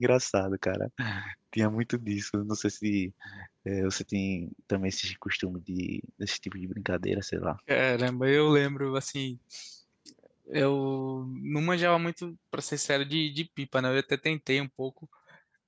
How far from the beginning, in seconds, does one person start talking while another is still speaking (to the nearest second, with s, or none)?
none